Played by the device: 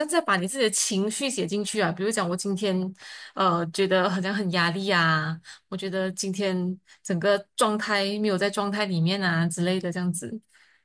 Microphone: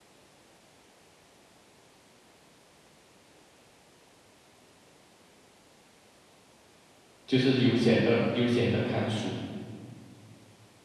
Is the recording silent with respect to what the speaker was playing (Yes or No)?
Yes